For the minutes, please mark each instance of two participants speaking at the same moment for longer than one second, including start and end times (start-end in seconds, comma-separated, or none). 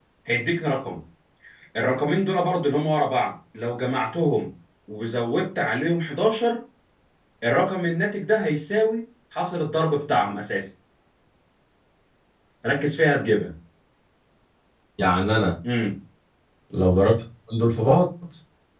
none